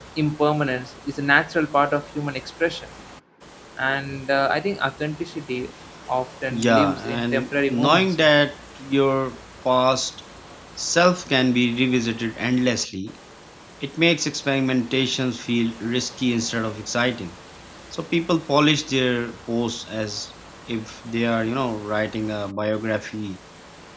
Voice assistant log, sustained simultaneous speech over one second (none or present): present